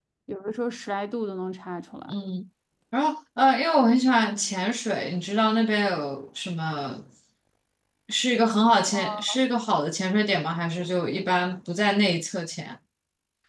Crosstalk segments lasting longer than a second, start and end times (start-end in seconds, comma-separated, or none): none